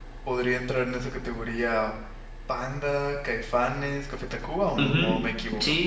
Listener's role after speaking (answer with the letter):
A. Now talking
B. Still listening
A